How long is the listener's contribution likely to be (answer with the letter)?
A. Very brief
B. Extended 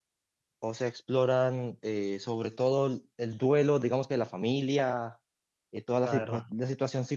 A